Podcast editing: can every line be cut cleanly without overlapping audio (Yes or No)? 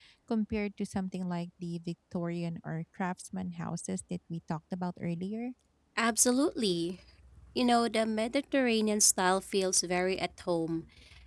Yes